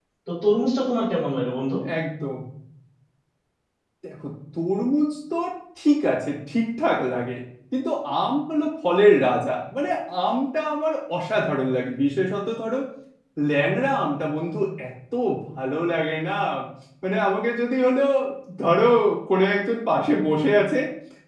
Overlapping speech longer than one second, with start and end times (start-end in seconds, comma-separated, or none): none